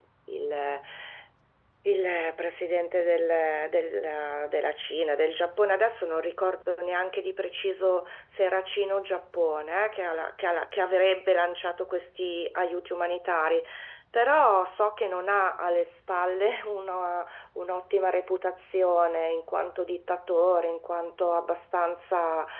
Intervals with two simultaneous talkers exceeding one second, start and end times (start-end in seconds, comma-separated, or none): none